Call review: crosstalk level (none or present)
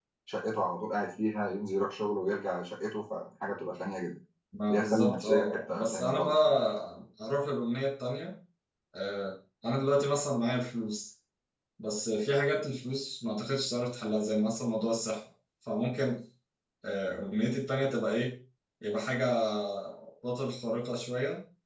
present